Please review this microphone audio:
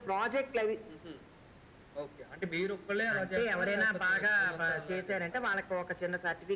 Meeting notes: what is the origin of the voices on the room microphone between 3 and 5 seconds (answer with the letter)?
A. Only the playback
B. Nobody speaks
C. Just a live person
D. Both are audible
A